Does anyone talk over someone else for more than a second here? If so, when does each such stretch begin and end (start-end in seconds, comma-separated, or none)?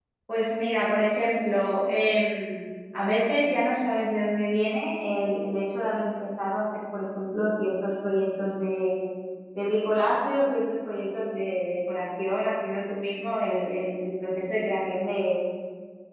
none